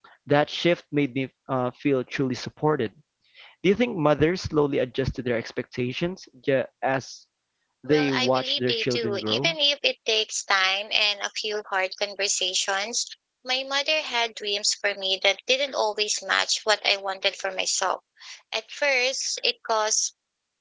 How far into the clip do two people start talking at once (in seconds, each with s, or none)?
7.9 s